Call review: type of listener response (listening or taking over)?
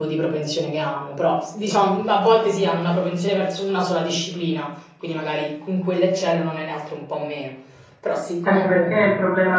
taking over